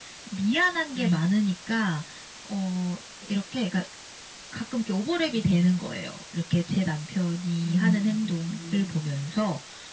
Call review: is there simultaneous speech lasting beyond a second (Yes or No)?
Yes